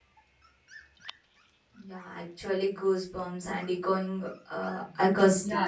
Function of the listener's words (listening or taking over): taking over